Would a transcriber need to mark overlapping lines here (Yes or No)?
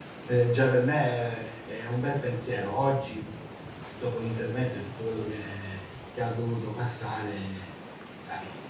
No